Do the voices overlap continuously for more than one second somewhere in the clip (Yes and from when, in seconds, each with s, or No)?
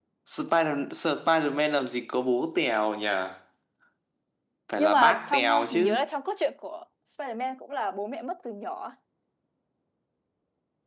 Yes, from 4.8 s